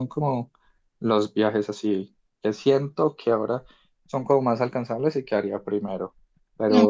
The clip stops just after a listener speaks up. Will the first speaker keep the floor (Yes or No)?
Yes